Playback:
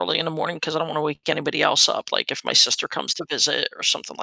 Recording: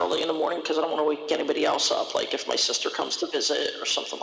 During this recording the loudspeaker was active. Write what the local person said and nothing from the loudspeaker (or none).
none